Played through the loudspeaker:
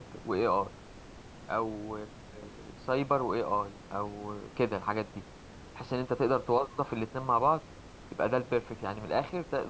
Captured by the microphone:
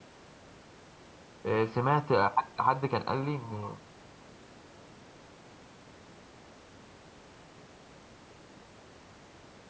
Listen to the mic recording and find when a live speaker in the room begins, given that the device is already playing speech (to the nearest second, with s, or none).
1 s